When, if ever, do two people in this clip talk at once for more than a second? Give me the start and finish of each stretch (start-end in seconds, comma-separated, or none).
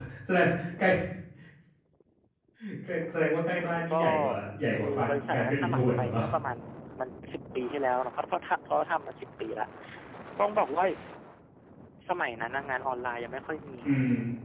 4.7-6.2